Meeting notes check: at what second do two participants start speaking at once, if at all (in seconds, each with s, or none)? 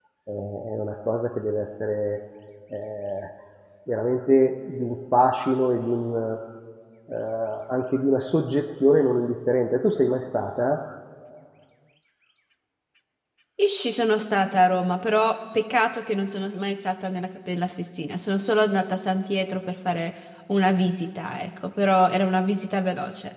none